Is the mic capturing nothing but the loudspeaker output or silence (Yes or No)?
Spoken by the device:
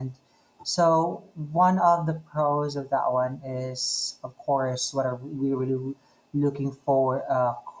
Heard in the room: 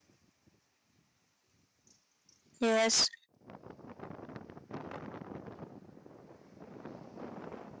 No